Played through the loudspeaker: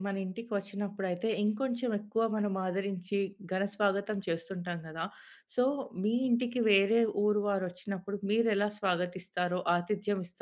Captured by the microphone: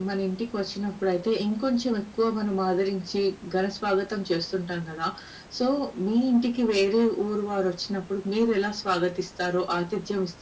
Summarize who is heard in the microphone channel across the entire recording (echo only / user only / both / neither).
echo only